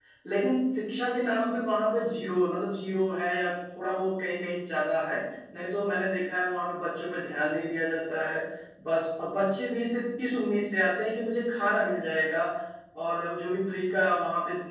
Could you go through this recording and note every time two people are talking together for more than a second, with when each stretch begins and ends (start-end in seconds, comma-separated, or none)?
none